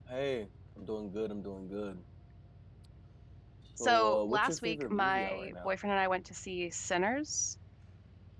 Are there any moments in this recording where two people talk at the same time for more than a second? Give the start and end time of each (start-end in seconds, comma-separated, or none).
3.8-5.7